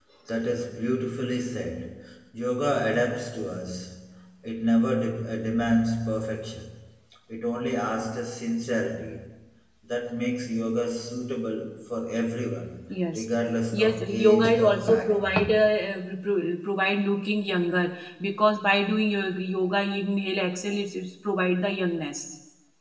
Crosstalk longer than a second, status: present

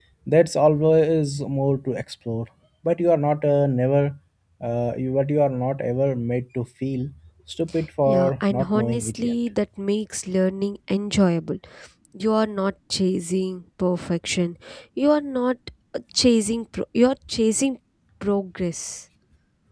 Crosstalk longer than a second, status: present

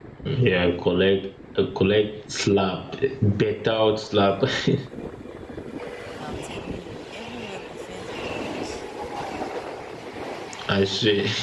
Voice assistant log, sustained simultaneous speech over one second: none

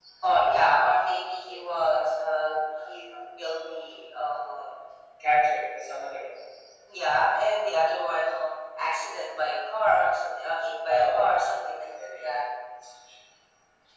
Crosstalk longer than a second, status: none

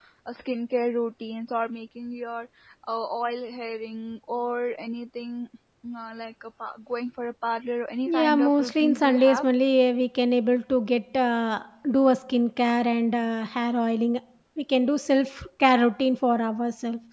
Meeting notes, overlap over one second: present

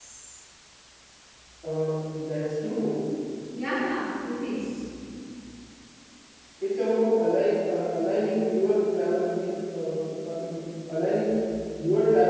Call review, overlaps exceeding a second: none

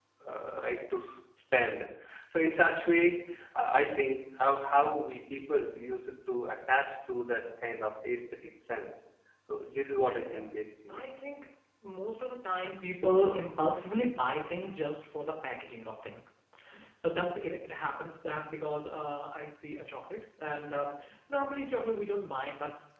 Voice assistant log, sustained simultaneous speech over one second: none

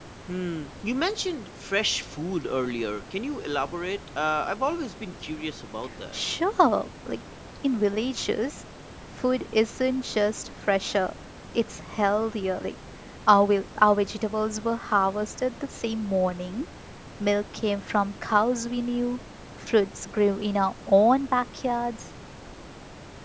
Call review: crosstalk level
none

